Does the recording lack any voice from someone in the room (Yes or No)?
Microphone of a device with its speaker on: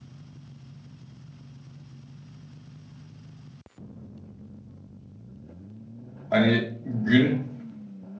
No